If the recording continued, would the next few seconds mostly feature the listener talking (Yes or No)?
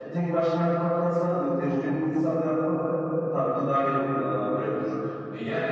Yes